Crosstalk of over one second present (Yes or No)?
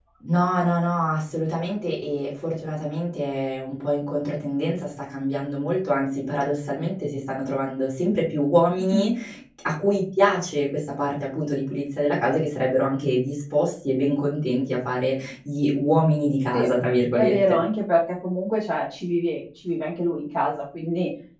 No